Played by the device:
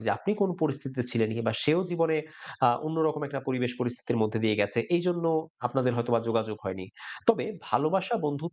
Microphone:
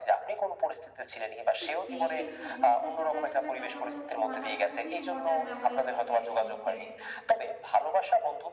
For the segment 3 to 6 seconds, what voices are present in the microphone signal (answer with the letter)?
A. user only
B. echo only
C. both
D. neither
C